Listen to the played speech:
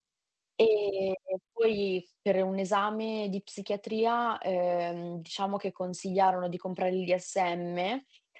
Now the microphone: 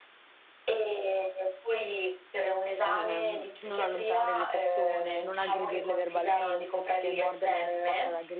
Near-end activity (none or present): present